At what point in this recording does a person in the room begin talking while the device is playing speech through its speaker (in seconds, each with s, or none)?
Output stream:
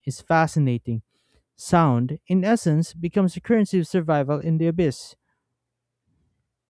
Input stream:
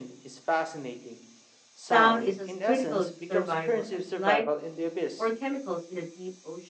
1.7 s